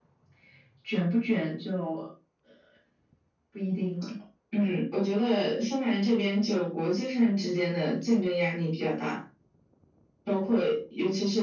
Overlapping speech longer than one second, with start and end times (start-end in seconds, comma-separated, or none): none